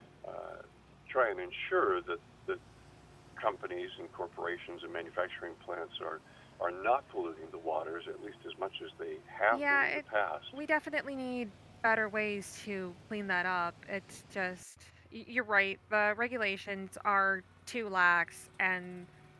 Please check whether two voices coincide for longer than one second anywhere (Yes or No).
No